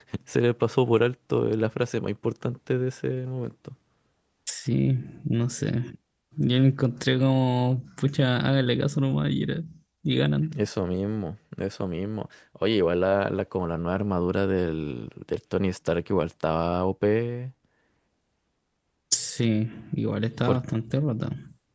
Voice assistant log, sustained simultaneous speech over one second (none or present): none